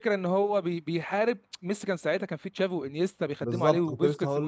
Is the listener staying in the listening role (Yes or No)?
No